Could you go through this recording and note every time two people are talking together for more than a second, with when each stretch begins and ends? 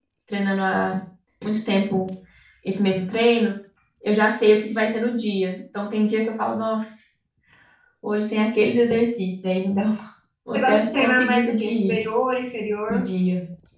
10.5-12.0

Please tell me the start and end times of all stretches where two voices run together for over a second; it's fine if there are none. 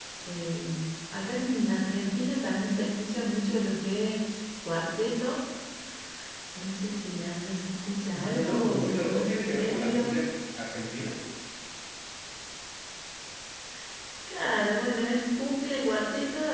8.1-10.1

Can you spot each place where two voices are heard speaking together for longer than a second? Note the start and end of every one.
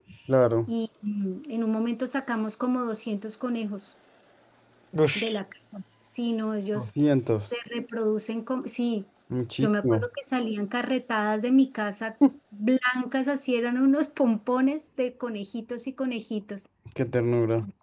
none

